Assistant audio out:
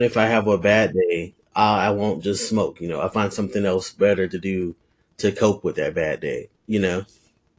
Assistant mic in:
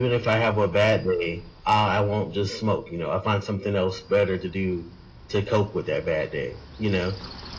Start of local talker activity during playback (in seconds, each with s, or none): none